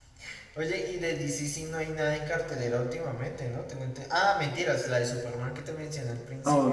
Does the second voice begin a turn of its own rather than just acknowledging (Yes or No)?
Yes